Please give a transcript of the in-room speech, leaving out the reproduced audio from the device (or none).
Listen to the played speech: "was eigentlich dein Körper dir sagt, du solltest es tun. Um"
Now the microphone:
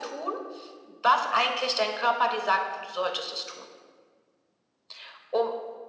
none